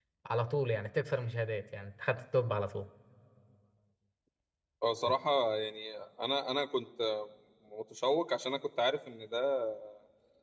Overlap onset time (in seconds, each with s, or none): none